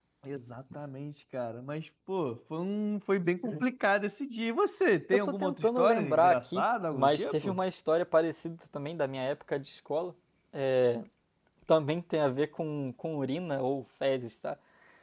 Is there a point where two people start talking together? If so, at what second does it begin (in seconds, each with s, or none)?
5.1 s